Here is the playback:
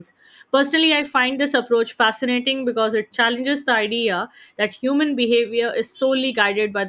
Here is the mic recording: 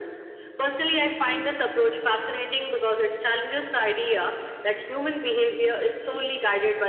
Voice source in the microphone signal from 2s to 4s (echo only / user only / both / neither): echo only